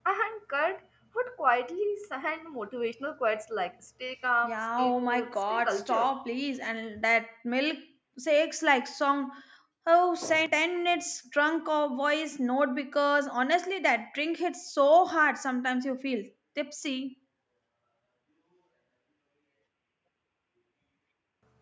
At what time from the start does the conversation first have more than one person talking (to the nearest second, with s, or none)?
4 s